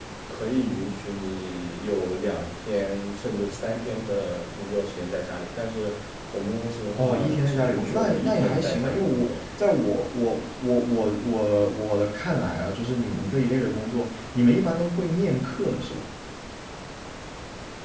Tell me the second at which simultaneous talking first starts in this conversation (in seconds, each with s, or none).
6.9 s